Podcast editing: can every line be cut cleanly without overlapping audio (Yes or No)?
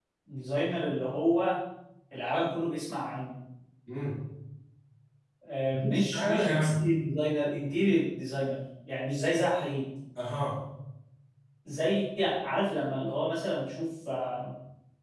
No